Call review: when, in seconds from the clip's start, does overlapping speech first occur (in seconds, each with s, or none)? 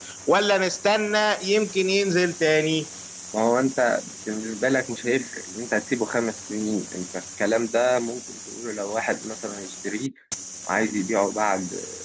none